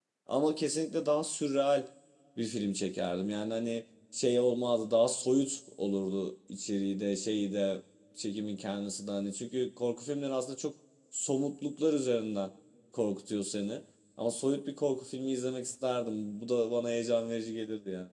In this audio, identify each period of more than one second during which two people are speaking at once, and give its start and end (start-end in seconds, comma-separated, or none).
none